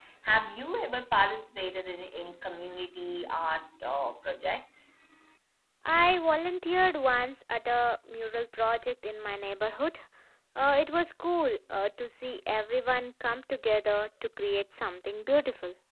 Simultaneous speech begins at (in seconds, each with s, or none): none